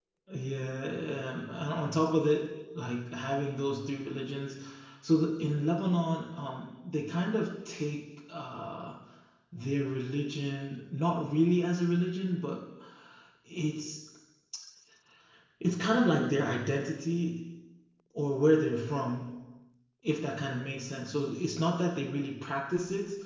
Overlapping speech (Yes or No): No